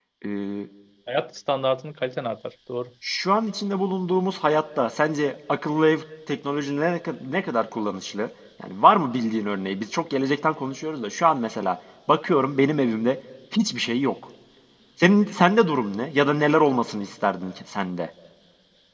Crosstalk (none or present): none